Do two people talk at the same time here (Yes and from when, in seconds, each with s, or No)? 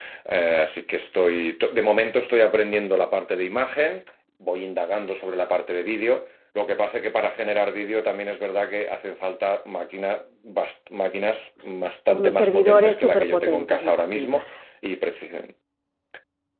Yes, from 12.2 s